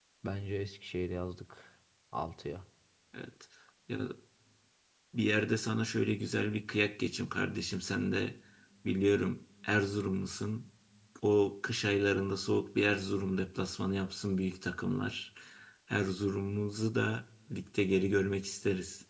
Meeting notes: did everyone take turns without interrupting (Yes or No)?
Yes